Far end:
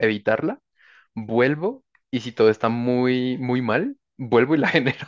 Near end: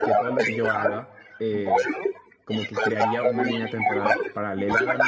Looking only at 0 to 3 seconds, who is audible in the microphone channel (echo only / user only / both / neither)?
both